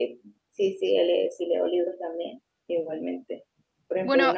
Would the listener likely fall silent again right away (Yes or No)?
Yes